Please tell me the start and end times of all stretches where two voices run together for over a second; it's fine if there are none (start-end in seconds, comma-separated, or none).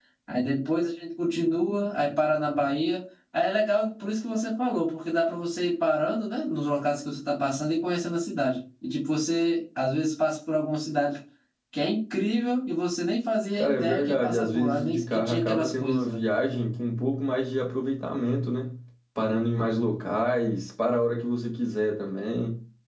13.6-16.2